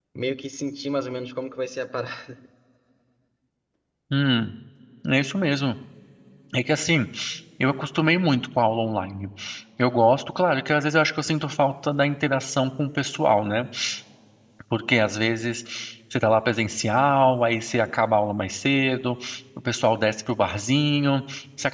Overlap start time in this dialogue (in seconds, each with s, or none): none